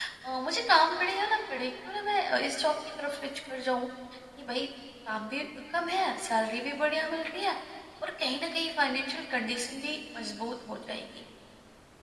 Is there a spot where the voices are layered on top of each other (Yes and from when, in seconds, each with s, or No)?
No